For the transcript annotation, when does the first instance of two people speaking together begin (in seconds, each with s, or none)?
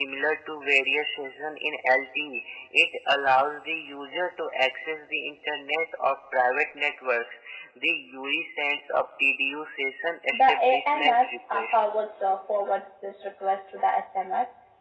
10.3 s